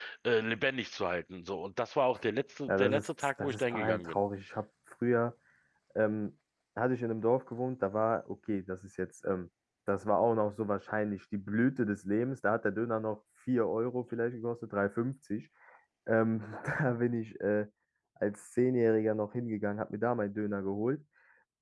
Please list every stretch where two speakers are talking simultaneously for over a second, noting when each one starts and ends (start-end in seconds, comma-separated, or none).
2.7-4.2